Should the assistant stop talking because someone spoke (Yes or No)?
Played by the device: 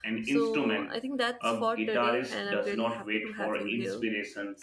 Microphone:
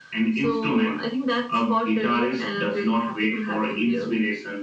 No